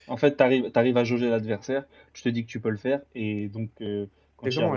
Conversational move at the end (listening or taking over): taking over